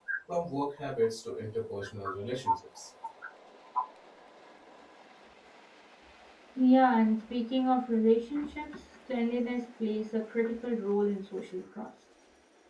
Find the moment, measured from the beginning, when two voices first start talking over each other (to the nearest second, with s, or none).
none